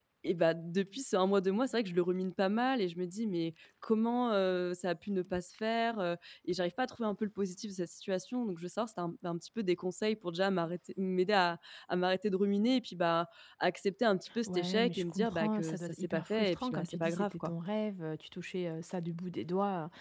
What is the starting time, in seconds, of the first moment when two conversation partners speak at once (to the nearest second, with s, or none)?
14 s